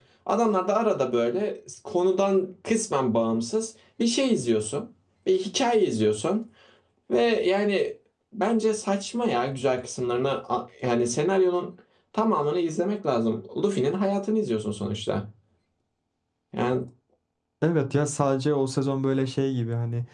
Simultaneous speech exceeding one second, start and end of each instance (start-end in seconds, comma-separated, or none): none